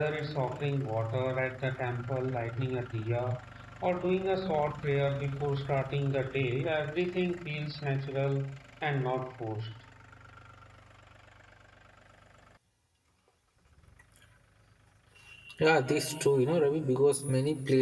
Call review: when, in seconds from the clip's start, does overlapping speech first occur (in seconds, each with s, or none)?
none